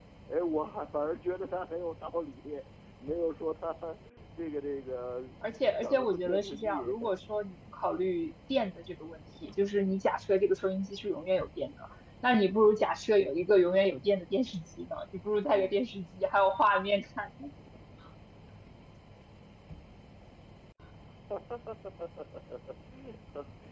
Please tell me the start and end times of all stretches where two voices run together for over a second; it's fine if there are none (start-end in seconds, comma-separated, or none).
5.7-6.9